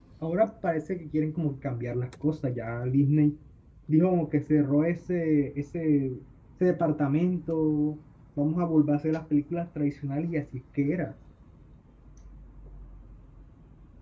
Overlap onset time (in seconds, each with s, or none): none